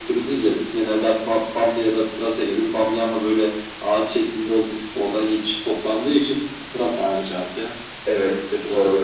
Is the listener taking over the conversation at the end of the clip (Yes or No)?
Yes